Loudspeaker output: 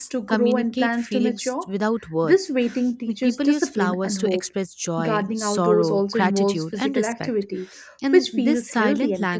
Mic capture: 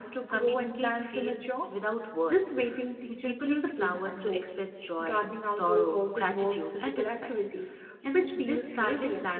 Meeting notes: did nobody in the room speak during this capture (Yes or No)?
Yes